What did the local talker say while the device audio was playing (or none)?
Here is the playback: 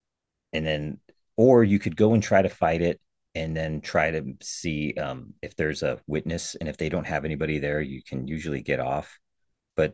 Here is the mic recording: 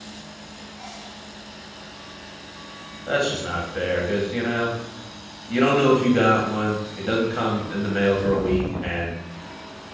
that's just not fair because you know you don't know if you got one. It doesn't come in the mail for a week, and